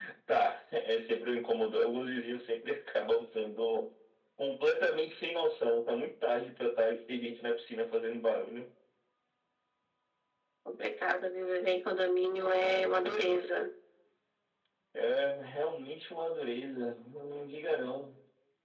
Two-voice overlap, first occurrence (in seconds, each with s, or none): none